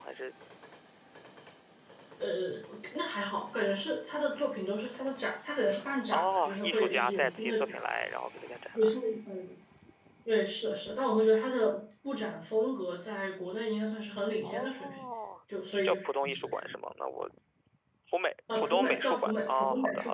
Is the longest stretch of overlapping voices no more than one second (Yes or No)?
No